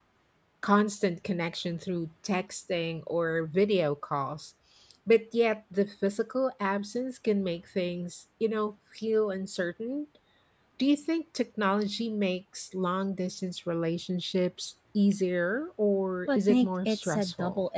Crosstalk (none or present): present